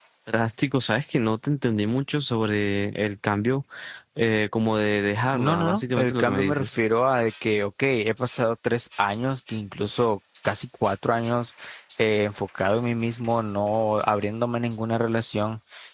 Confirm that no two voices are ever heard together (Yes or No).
No